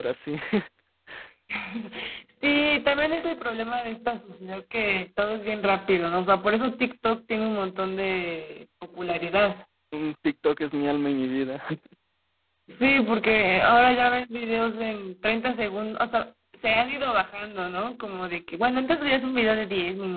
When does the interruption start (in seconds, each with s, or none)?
none